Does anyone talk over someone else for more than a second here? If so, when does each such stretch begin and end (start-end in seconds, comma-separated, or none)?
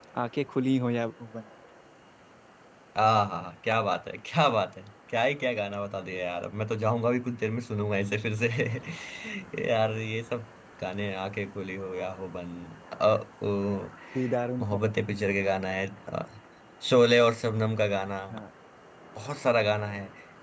none